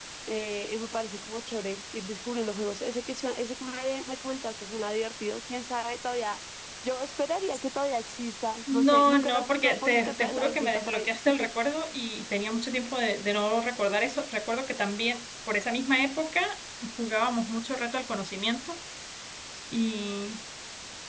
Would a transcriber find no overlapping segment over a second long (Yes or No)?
No